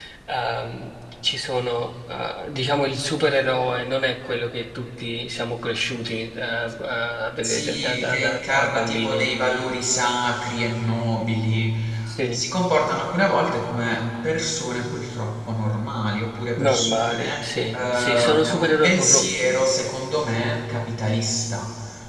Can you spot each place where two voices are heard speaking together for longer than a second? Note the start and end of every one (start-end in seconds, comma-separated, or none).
7.4-9.3, 16.6-19.6